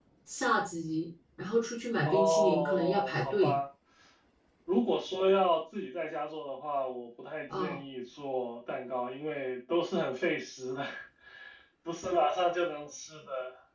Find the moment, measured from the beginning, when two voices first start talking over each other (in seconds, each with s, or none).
2.0 s